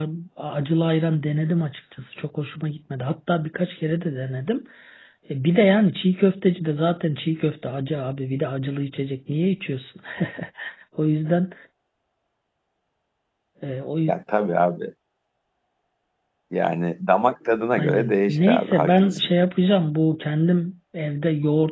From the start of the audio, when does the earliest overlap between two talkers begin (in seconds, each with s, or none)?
17.8 s